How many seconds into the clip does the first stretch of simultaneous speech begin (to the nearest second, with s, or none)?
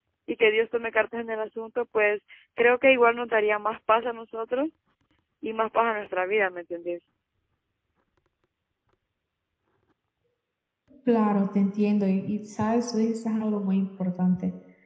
none